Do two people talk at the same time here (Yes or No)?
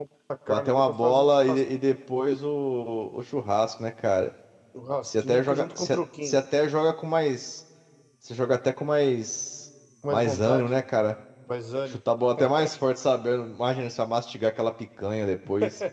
Yes